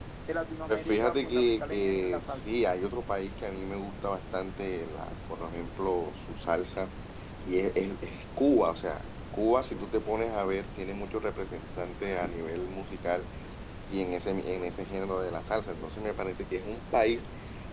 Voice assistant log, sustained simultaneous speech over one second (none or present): present